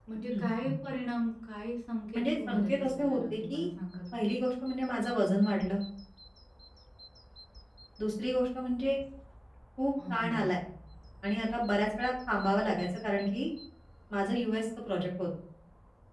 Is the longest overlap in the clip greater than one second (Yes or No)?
Yes